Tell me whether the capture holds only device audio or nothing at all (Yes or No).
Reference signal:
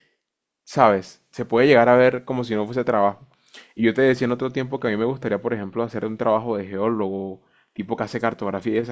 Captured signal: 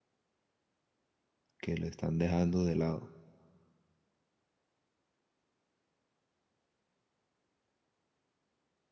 No